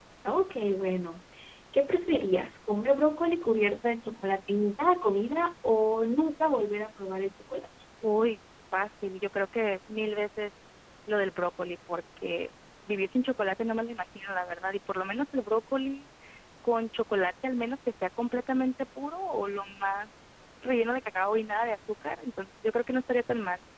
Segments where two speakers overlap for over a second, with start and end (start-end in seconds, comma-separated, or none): none